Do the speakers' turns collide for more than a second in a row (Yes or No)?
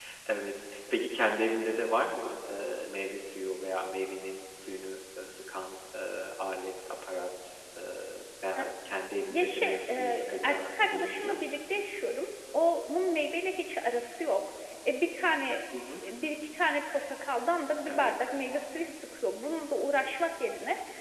Yes